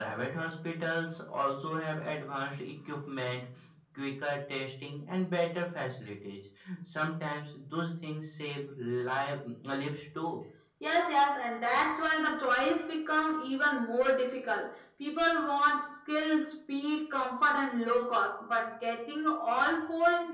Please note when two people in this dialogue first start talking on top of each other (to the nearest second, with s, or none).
none